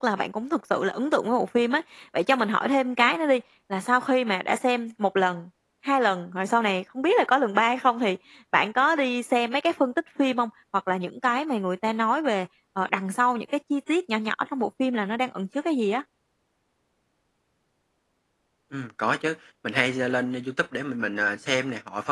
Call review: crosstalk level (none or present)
none